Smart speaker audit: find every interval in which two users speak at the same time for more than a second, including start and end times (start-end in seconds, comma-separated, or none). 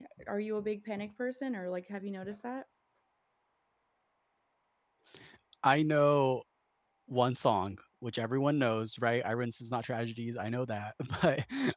none